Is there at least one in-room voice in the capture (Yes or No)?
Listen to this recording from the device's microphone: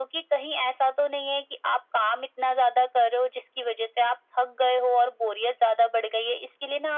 No